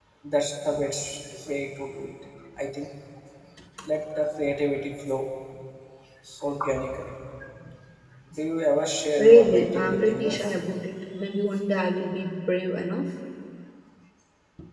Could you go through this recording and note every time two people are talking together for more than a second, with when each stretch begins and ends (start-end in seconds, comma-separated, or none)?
9.2-10.4